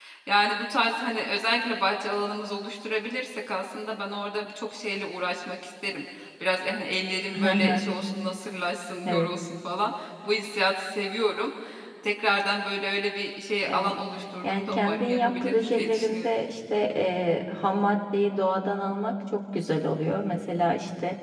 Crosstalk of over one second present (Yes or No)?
Yes